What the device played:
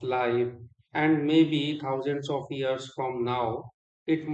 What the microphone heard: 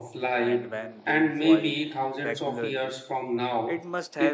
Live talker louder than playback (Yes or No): No